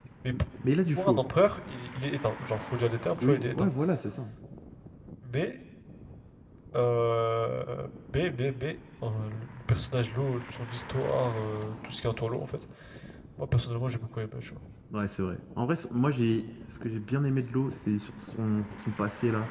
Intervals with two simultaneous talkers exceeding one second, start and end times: none

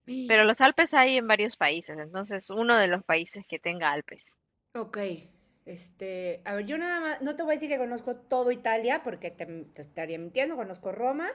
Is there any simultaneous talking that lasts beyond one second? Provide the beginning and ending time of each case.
none

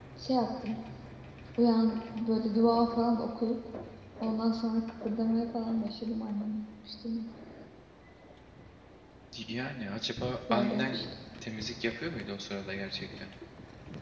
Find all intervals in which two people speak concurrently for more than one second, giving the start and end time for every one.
none

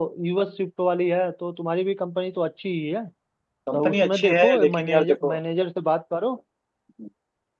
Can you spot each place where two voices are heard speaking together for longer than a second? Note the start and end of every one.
3.7-5.4

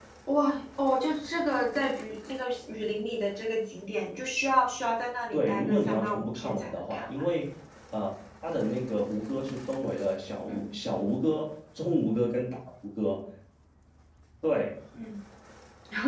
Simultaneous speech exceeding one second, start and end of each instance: 5.3-7.2

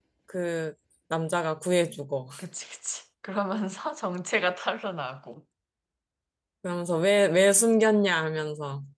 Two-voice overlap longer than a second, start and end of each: none

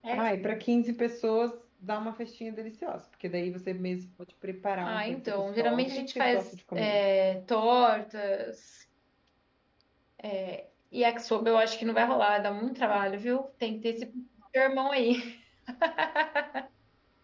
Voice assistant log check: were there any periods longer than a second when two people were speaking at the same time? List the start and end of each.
4.8-7.0

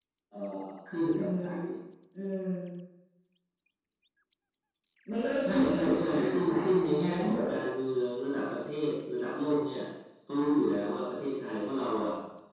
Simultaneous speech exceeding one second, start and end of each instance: 5.4-7.5

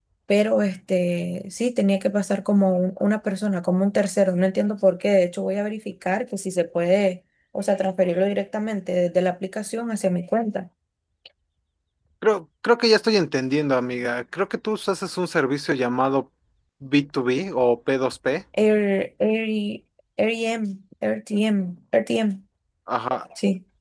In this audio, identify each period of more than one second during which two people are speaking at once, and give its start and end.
none

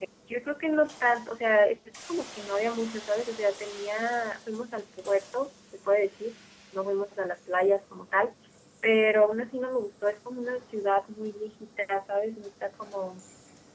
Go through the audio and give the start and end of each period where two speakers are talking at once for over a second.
none

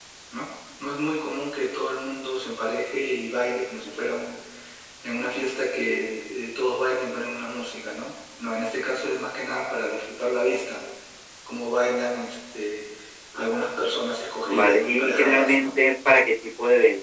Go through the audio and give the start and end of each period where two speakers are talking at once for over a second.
14.4-15.7

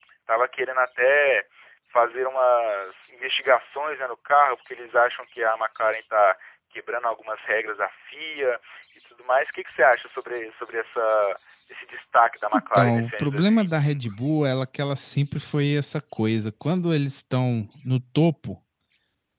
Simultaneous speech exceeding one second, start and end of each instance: 12.5-14.0

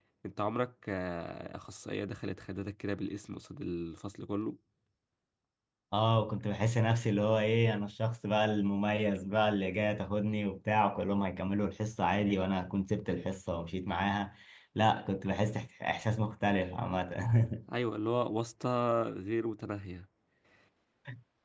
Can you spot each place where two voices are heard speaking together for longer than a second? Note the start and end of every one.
none

